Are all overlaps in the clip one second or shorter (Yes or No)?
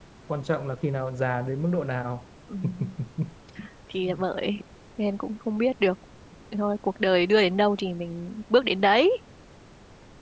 Yes